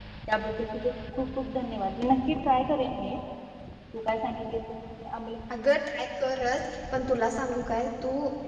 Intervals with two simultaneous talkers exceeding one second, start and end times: none

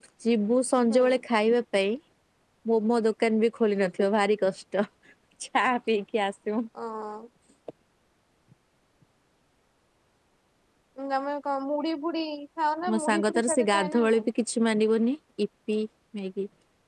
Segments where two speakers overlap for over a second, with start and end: 12.9-14.2

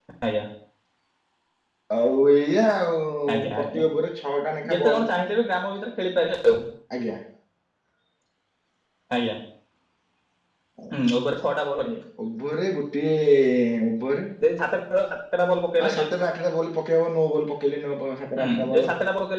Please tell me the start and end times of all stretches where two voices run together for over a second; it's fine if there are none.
none

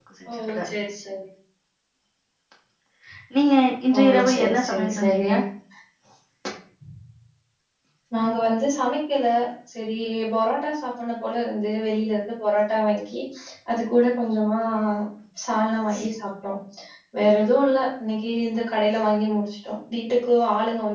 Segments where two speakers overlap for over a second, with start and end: 4.0-5.3

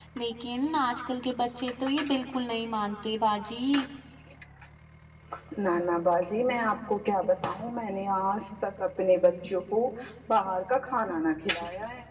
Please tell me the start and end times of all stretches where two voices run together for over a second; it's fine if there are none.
none

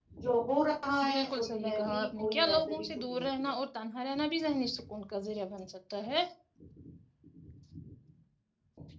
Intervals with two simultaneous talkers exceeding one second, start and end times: 1.1-3.5

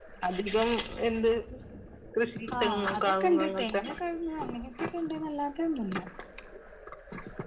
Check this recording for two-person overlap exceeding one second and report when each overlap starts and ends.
2.6-3.8

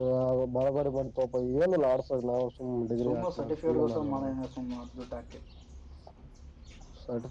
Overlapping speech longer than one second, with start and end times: 3.1-4.3

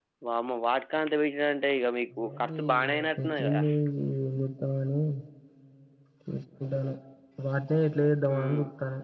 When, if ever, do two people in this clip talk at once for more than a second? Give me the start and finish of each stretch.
2.2-3.6

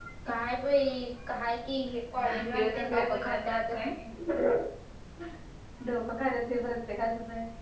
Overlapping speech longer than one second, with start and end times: 2.2-3.8

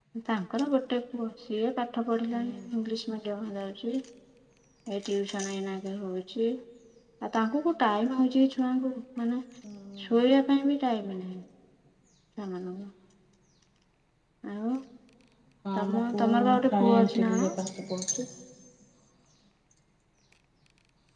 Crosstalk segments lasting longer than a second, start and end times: 15.8-17.5

